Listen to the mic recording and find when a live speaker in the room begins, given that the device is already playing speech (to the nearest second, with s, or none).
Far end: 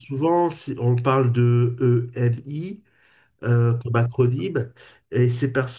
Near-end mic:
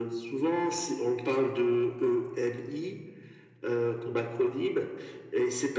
none